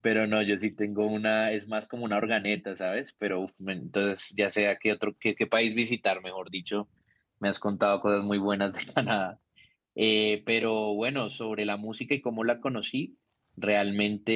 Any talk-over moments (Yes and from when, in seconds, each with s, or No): No